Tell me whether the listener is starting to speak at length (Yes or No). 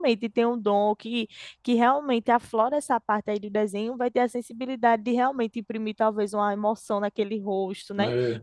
No